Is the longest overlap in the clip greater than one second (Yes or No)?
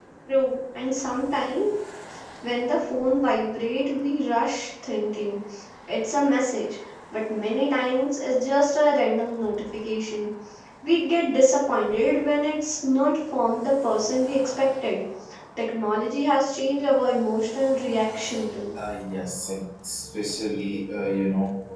No